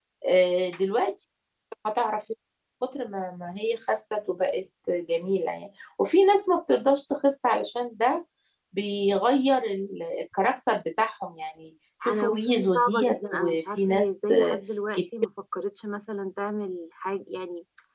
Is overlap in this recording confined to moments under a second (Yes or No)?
No